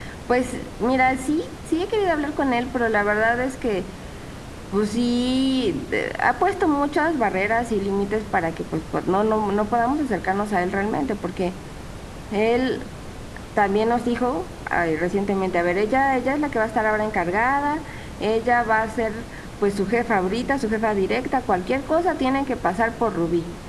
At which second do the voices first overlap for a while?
none

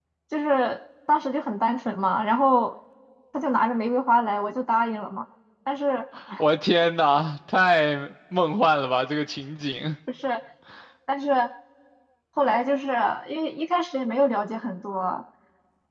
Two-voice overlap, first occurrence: none

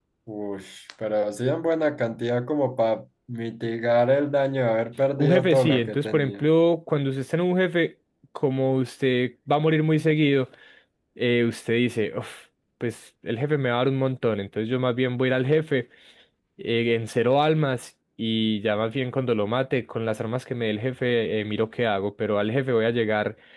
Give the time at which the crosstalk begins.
5 s

